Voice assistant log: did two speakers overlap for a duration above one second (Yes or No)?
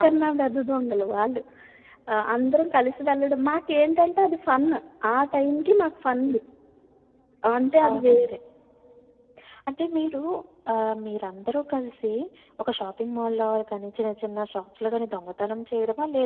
No